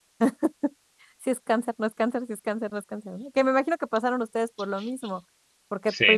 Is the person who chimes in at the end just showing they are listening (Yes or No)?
Yes